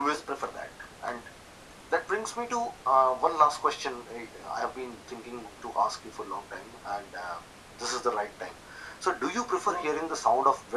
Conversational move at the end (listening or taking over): listening